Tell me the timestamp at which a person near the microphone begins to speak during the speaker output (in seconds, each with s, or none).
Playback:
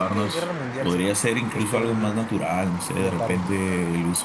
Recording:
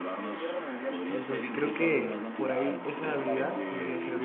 1.1 s